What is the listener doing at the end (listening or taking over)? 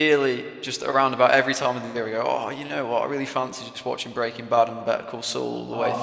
taking over